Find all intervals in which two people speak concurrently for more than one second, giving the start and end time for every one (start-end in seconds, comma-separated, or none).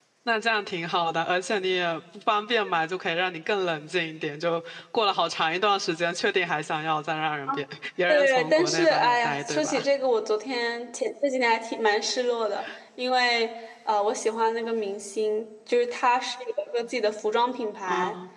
8.1-9.8